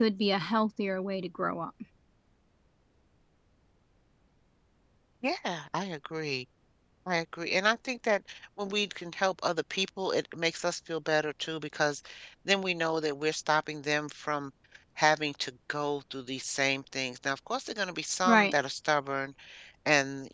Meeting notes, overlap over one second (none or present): none